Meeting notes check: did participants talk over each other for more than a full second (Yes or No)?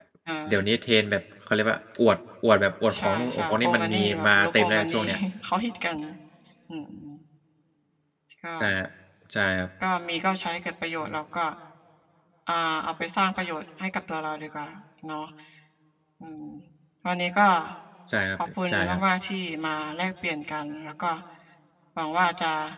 Yes